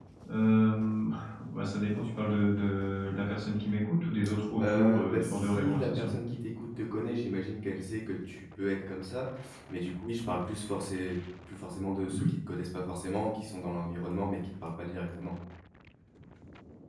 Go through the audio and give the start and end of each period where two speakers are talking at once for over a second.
4.6-6.1

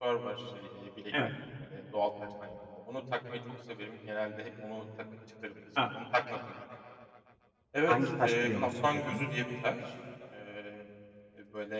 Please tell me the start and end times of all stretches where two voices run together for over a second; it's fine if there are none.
7.9-9.2

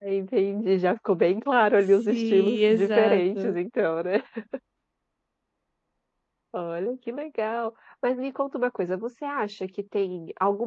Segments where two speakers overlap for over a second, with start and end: 2.1-3.5

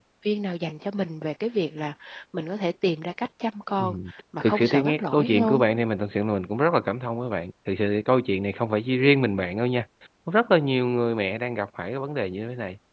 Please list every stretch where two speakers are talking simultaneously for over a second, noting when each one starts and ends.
4.4-5.6

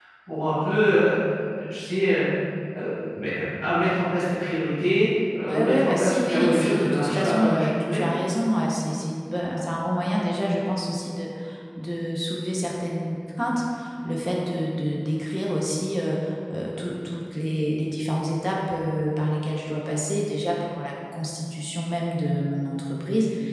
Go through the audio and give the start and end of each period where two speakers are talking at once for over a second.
5.5-8.0

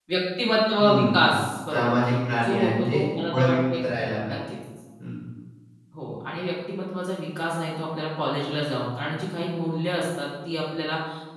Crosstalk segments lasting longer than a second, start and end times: 2.4-3.8

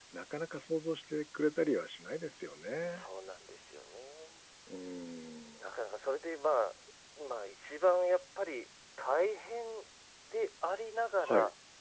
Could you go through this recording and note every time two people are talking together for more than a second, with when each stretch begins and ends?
none

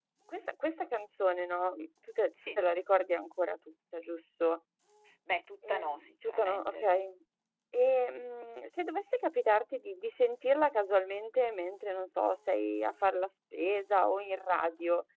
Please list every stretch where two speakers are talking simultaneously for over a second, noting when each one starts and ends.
5.7-6.9

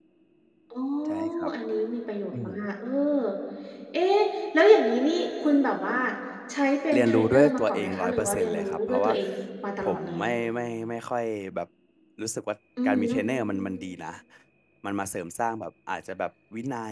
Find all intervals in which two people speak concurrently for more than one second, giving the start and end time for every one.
6.9-9.1

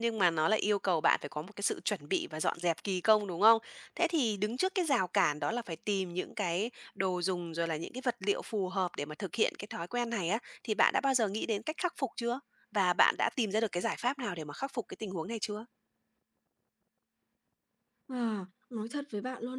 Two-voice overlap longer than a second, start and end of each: none

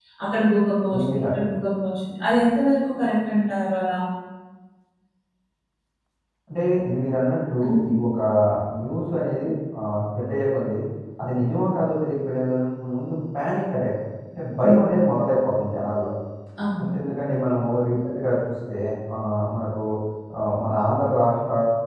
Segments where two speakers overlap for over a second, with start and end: none

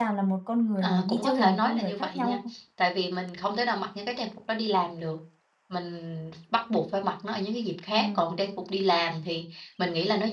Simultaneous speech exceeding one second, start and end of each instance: 0.8-2.4

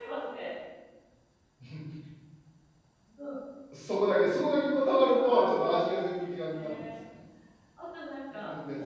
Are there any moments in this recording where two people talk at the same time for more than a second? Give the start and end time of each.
5.1-6.9

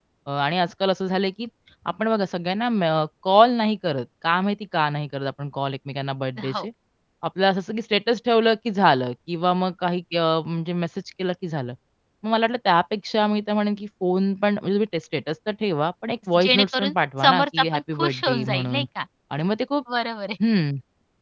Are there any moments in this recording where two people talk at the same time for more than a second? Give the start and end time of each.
16.3-18.8

